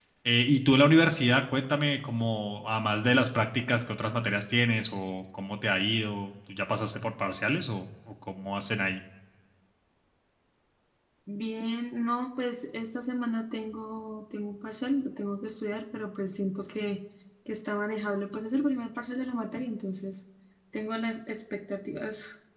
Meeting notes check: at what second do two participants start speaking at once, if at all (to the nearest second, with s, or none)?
none